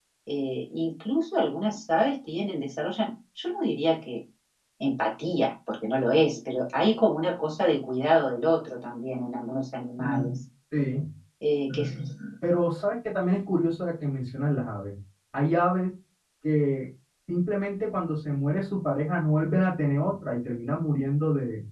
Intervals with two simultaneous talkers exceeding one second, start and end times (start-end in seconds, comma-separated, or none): none